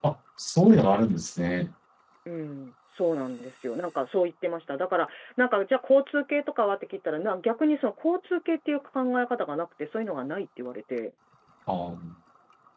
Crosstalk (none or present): none